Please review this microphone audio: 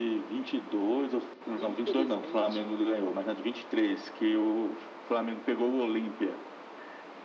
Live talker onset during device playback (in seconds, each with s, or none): 1.6 s